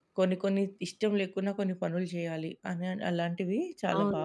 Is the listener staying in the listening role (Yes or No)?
No